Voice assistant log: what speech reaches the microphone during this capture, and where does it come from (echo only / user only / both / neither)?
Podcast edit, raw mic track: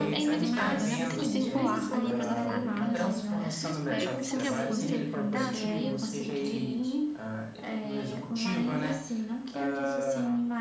both